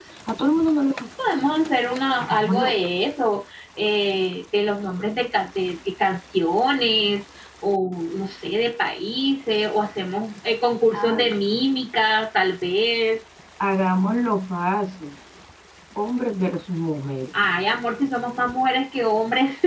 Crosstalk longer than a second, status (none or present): none